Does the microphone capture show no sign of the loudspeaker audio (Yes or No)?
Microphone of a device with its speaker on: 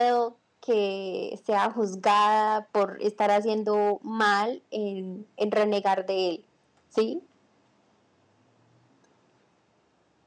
Yes